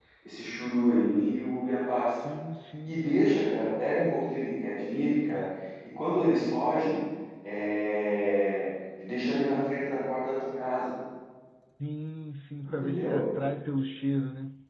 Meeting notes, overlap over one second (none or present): none